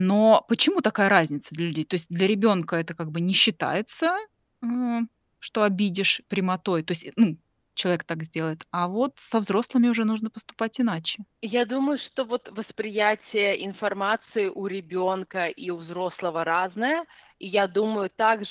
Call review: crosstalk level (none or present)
none